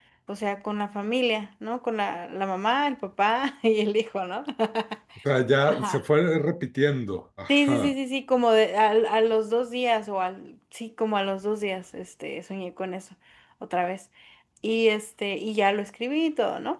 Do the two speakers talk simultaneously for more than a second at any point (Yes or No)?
No